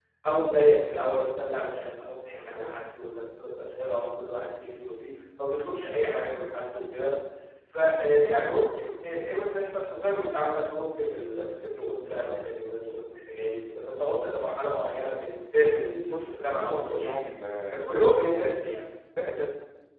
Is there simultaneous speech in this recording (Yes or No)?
Yes